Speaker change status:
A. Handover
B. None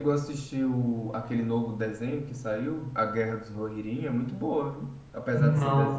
A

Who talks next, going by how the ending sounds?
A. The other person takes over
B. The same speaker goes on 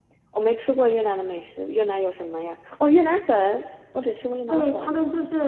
A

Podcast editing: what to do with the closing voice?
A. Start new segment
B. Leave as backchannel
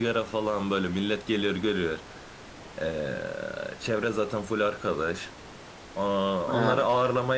B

